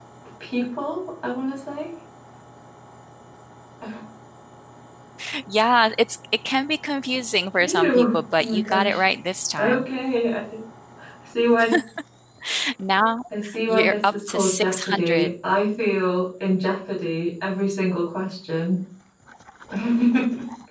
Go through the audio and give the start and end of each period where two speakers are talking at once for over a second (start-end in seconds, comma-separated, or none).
7.6-9.0, 13.7-15.3